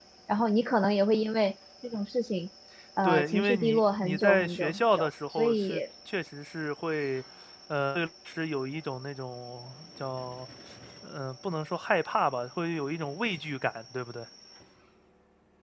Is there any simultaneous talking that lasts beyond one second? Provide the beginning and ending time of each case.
3.0-5.8

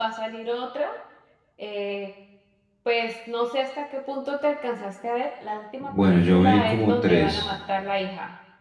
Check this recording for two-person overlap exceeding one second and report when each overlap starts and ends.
5.8-7.4

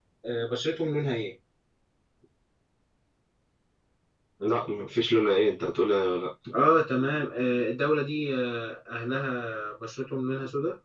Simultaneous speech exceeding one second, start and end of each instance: none

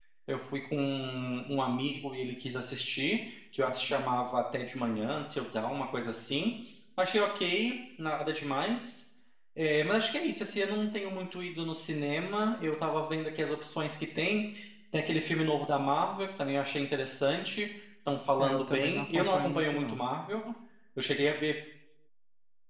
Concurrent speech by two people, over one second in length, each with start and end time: 18.4-20.0

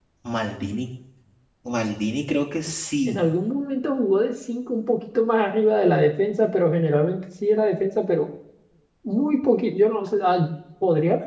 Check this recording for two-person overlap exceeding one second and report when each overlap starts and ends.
none

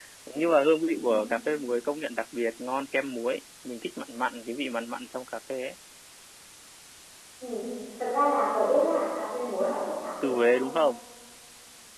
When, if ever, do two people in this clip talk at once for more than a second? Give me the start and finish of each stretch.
none

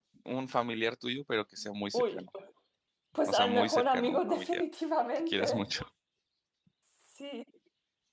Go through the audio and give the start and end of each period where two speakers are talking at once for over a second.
3.3-4.6

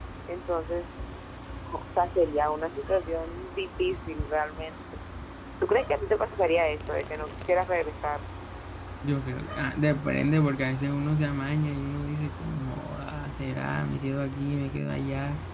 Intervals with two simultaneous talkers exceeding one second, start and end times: none

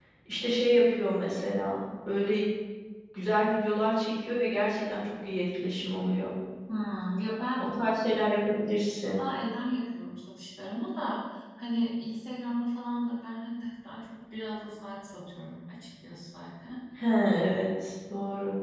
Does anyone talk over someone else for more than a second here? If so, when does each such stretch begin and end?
none

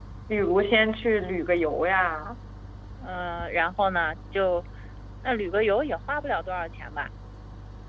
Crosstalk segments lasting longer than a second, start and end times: none

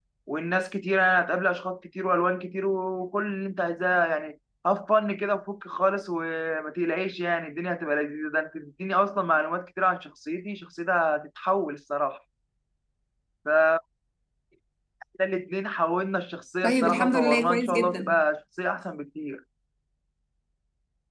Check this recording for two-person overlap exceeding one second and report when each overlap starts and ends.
16.6-18.3

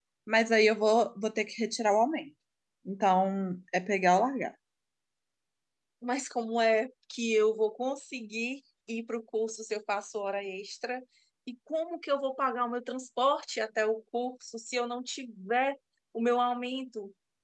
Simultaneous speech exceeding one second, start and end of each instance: none

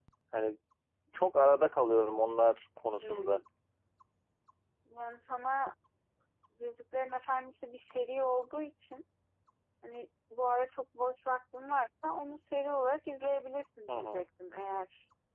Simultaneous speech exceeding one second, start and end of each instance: none

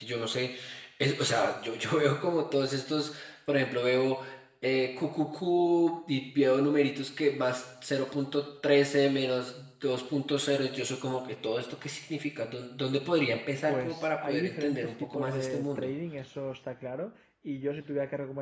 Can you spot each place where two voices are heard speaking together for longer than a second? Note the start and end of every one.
13.7-15.9

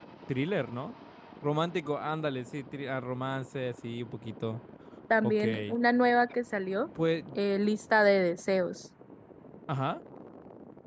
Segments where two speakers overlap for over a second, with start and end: none

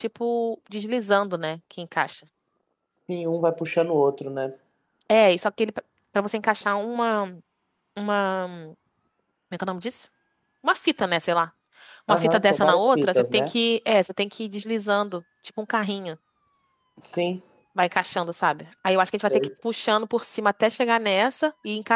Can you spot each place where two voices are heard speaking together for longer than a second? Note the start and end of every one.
12.1-13.5

